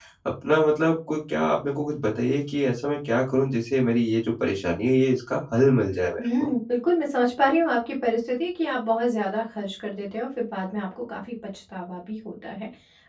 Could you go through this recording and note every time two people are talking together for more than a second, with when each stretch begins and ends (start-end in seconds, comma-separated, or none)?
none